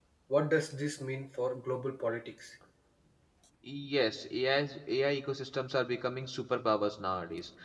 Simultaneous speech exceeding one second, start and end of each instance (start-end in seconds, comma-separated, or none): none